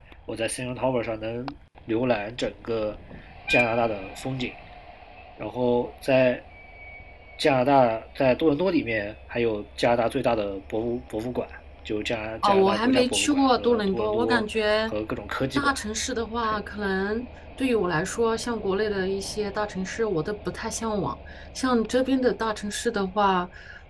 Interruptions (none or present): present